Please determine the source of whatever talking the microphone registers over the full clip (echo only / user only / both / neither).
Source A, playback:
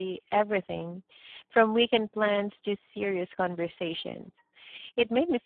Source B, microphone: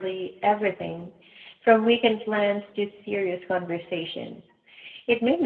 echo only